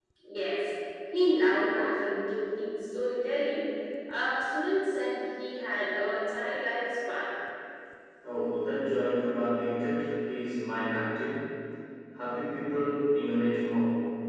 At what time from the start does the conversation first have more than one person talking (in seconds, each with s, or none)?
none